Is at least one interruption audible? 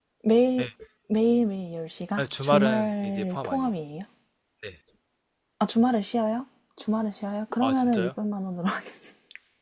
Yes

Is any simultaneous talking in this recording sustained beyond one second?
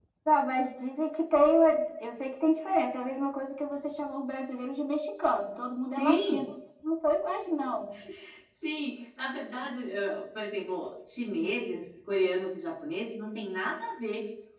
No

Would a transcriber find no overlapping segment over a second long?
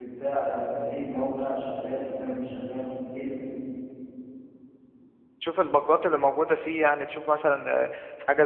Yes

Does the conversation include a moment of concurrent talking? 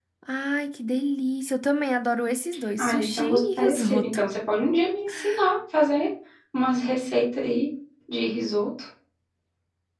Yes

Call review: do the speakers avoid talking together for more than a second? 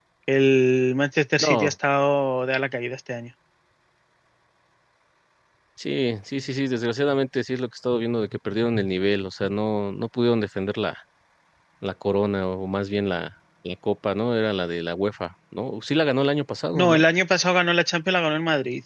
Yes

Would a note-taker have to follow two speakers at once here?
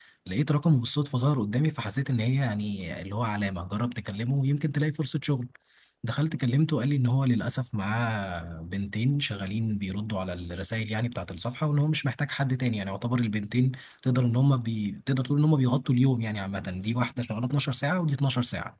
No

